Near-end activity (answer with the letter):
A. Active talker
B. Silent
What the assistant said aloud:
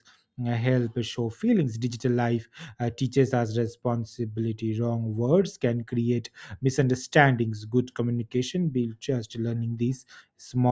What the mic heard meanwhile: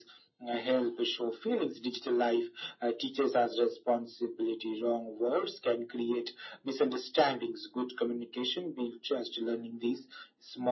B